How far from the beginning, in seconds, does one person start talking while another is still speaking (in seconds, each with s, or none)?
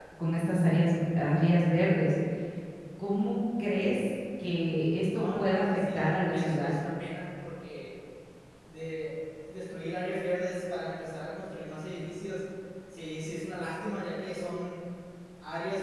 5.1 s